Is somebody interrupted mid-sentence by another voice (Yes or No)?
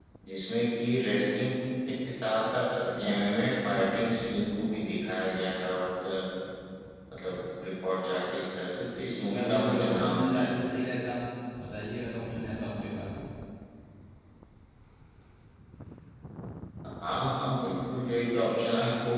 Yes